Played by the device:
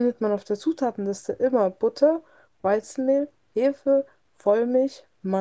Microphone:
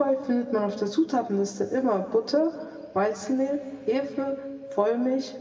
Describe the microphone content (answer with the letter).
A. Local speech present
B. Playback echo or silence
B